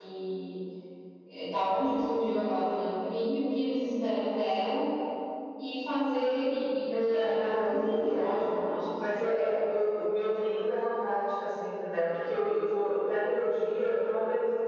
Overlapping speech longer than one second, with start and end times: 7.1-8.4

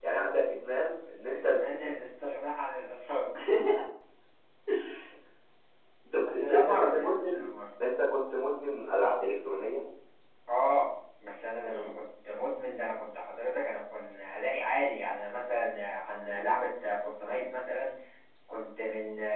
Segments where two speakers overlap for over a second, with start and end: 6.2-7.5

